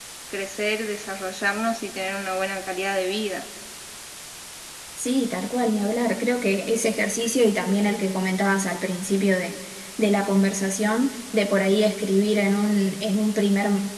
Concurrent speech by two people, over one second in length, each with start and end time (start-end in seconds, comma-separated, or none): none